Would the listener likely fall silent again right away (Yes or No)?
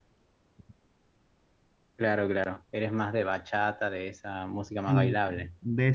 No